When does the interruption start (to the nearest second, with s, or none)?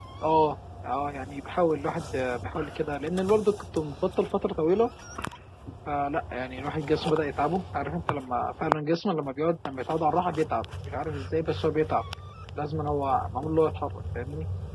none